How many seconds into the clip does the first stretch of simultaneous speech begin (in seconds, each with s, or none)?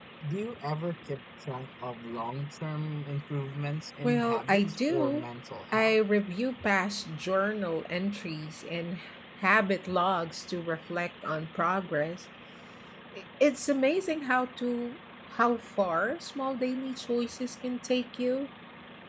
4.0 s